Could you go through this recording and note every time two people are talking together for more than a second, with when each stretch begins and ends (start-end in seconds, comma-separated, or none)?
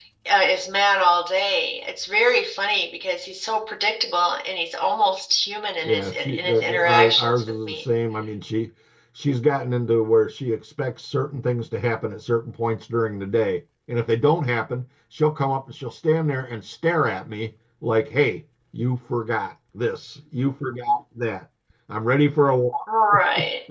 5.8-7.8